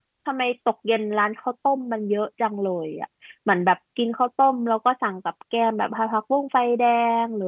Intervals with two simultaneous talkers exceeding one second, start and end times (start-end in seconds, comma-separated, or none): none